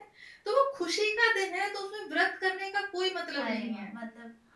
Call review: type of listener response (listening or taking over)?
taking over